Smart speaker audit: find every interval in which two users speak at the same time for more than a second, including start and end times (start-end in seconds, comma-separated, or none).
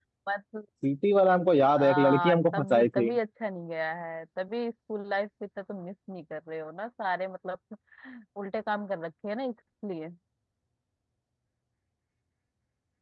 1.8-3.1